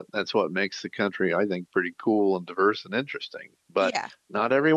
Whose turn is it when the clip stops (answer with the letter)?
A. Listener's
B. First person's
B